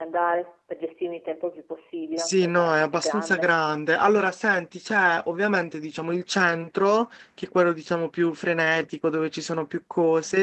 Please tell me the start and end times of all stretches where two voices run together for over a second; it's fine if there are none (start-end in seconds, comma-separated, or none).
2.2-3.5